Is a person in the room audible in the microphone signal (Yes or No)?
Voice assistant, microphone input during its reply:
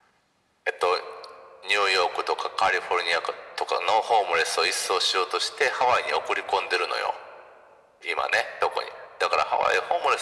No